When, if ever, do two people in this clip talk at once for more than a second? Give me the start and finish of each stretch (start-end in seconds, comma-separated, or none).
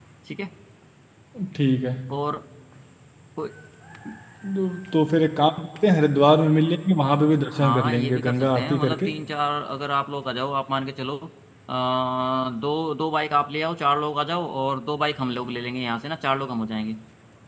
7.5-9.1